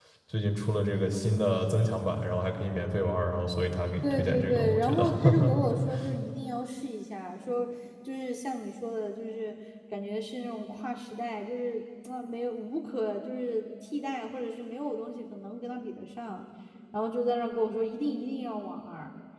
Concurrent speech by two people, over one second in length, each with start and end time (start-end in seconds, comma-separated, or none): 4.0-5.5